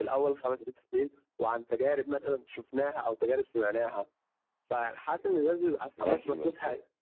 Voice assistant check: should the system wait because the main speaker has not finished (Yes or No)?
No